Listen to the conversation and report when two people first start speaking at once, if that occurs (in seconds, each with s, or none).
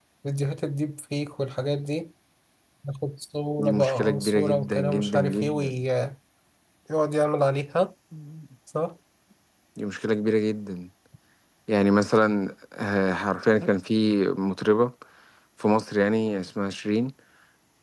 3.6 s